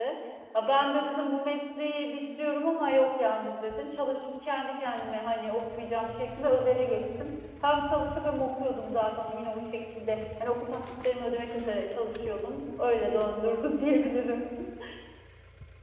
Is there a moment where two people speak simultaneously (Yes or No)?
No